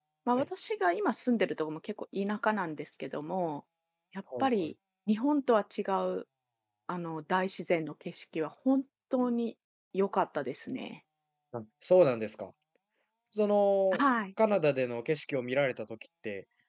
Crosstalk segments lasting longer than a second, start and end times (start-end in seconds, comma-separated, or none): none